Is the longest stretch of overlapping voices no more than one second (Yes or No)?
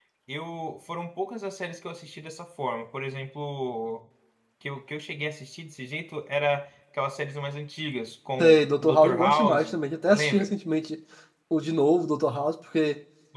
No